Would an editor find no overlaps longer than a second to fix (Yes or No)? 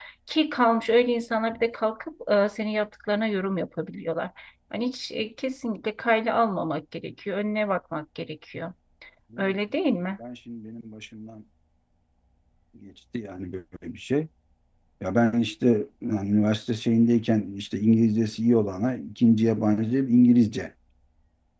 Yes